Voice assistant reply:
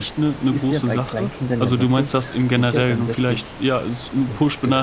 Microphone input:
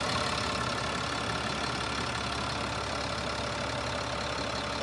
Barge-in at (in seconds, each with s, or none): none